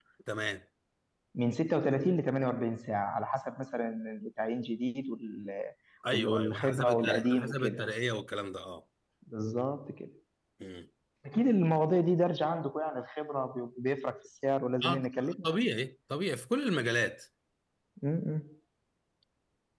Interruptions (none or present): present